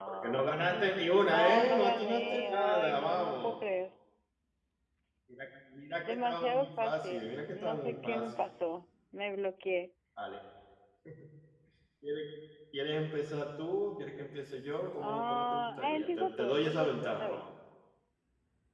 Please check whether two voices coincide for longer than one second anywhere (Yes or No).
Yes